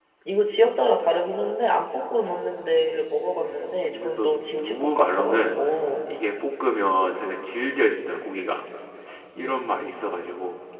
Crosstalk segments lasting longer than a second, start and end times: 3.4-5.5

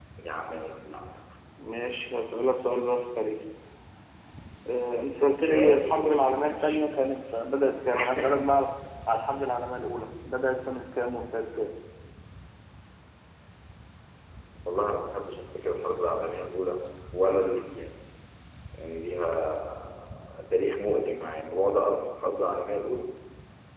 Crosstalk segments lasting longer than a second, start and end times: 5.3-6.8

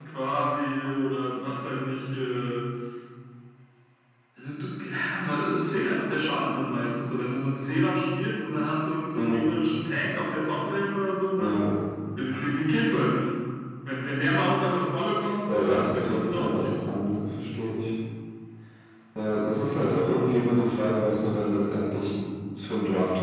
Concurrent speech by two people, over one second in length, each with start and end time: 15.5-16.9

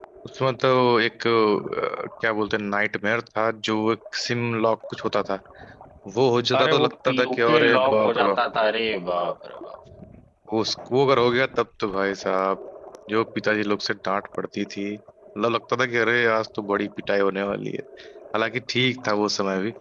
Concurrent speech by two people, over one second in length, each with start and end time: 6.6-8.4

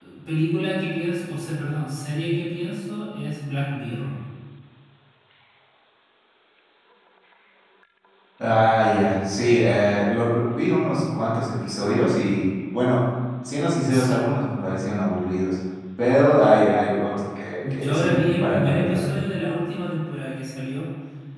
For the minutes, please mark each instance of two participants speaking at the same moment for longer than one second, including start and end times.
17.6-19.1

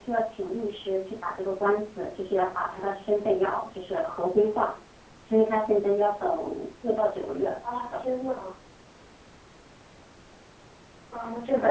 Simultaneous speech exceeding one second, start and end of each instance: none

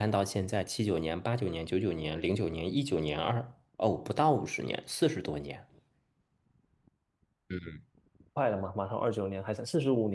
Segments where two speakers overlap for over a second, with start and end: none

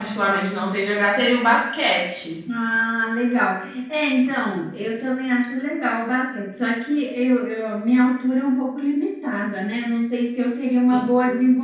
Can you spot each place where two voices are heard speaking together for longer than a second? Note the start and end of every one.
none

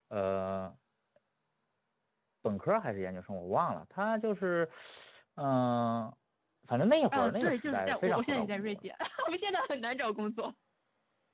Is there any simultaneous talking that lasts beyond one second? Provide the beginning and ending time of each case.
7.1-8.9

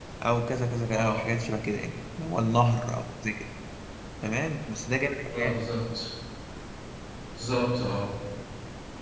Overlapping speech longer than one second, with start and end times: none

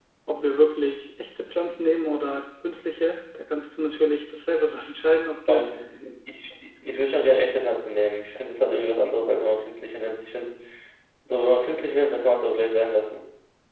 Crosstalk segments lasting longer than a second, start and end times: none

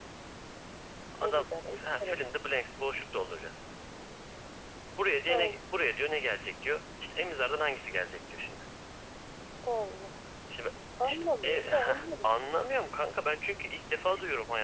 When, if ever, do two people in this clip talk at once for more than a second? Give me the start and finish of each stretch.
11.0-12.4

